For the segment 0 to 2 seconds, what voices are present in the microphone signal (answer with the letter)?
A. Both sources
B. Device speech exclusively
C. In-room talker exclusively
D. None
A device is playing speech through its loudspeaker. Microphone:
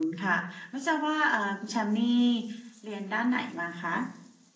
C